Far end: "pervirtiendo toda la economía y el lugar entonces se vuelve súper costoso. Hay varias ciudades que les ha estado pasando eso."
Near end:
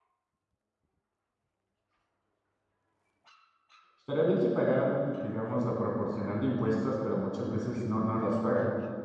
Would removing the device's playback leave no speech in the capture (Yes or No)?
No